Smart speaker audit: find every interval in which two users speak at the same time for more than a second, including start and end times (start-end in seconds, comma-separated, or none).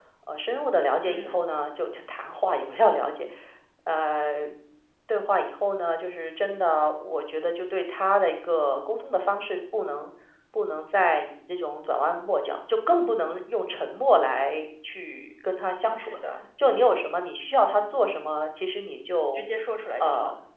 none